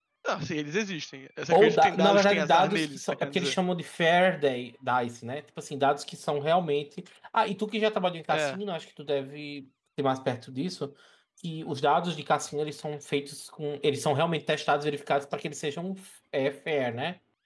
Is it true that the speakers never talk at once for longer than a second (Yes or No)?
No